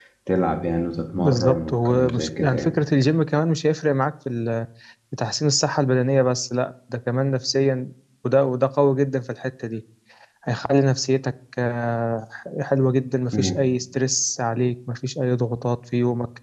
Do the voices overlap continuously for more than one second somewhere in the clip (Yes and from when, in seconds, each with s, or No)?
Yes, from 1.2 s